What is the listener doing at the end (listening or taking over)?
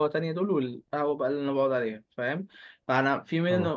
listening